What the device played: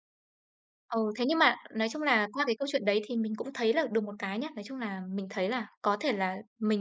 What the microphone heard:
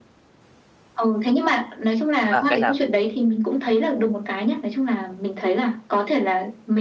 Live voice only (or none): à, cái nào